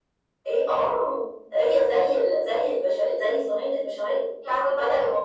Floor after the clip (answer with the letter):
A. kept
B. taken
B